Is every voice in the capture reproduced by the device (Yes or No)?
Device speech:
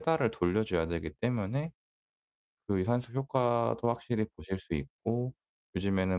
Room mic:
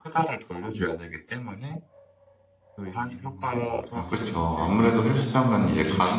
No